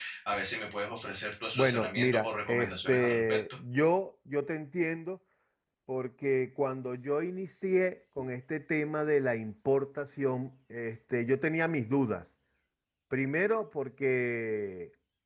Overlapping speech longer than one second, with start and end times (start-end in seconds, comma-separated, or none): 1.6-3.4